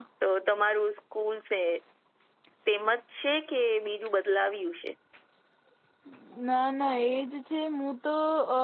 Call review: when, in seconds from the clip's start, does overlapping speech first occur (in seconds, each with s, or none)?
none